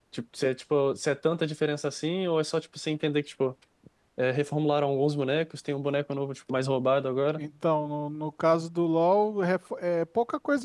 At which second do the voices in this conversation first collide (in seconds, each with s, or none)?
none